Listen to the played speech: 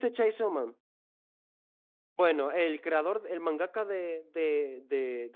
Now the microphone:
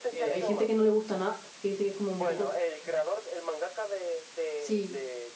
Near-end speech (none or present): present